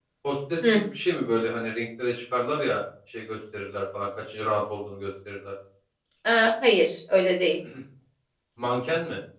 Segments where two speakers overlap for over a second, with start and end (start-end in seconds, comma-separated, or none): none